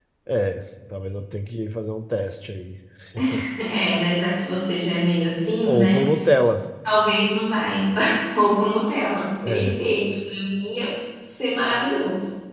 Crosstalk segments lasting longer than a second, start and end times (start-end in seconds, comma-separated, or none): none